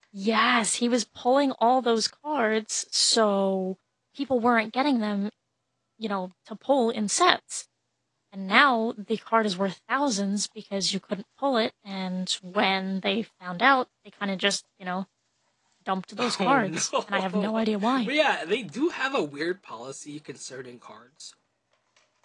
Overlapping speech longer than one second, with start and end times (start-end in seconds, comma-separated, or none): 16.4-17.6